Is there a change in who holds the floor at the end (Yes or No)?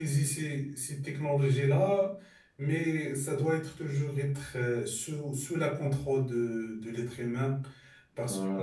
Yes